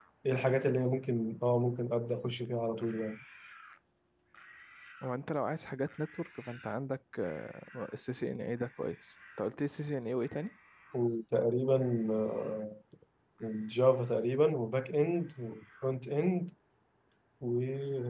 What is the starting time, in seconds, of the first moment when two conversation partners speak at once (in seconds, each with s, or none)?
none